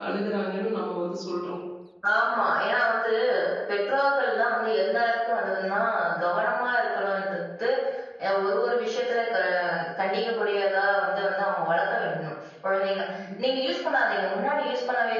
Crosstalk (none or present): none